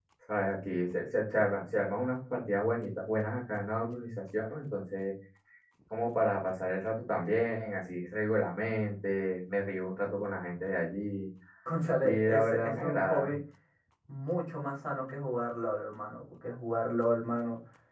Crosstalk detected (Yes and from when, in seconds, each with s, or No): Yes, from 12.0 s